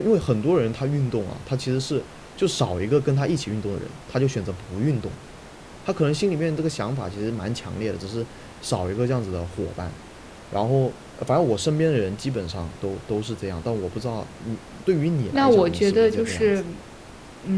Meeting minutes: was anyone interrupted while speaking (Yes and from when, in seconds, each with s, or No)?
Yes, from 15.3 s